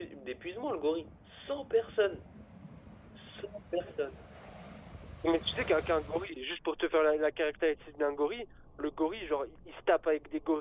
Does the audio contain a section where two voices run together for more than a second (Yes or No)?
No